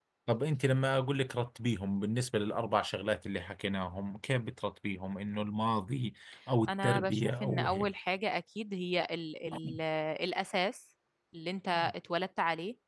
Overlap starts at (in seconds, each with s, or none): 6.7 s